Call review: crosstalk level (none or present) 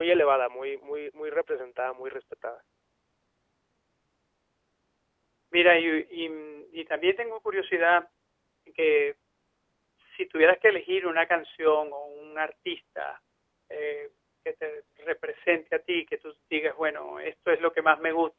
none